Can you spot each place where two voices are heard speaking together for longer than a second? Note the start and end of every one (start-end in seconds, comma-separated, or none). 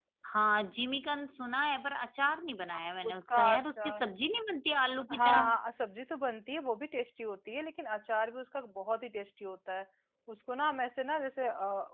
2.7-4.0